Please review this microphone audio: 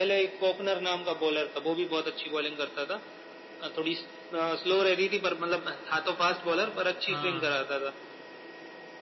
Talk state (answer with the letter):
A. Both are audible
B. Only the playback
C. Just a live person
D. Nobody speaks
A